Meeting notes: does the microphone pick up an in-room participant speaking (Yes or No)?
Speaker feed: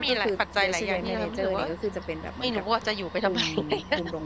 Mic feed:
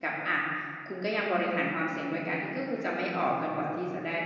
Yes